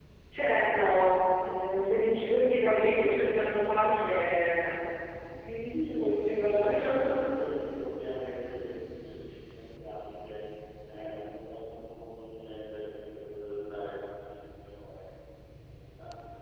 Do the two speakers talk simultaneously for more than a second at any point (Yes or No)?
Yes